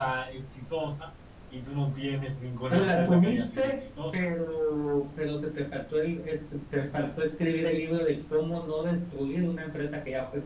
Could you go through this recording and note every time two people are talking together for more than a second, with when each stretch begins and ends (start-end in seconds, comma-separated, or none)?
2.7-4.3